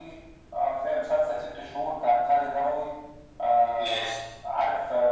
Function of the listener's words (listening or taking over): listening